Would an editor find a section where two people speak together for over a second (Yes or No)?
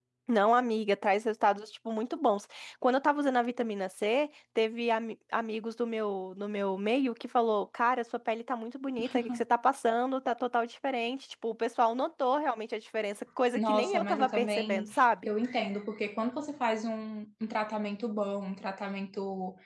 Yes